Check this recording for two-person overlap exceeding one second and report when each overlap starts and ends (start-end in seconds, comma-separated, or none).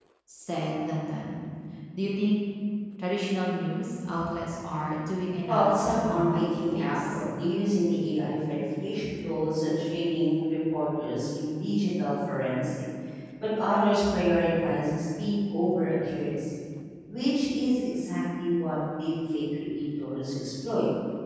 5.5-7.2